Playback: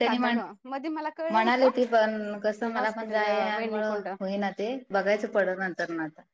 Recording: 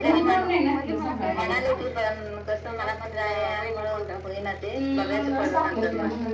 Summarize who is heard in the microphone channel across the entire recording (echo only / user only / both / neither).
both